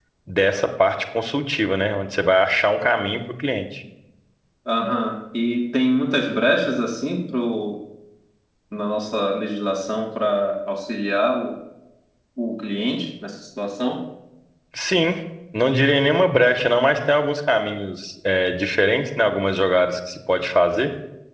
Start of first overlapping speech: none

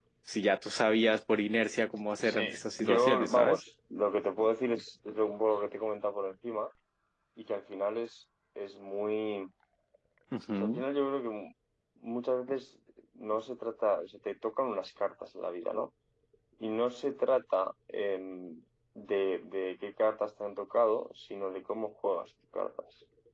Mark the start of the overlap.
2.2 s

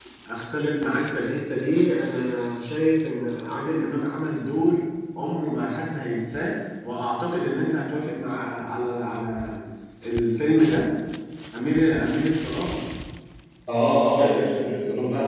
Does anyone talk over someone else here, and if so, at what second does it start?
none

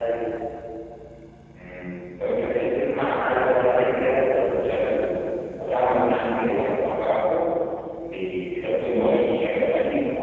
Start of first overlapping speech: 3.1 s

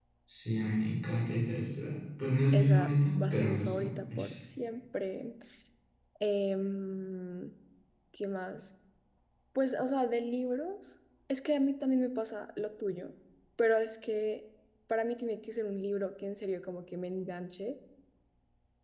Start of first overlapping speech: 2.5 s

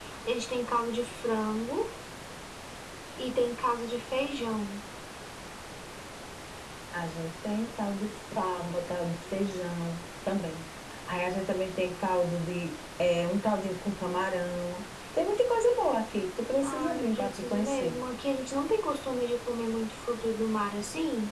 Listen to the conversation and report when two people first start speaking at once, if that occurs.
16.6 s

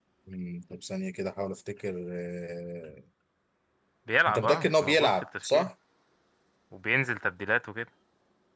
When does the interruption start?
4.3 s

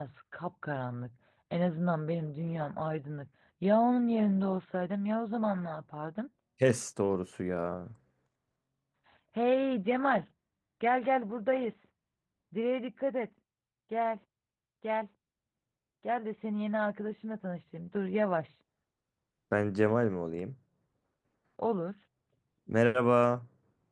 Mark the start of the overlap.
none

